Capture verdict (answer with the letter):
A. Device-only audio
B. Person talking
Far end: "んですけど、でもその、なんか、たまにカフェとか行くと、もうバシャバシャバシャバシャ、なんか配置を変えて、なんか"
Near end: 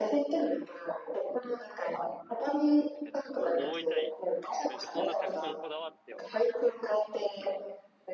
B